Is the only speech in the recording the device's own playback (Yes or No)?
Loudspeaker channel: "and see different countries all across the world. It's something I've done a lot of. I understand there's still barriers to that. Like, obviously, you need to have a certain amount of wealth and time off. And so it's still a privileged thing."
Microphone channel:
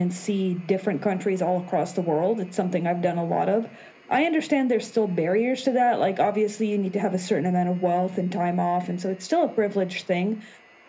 Yes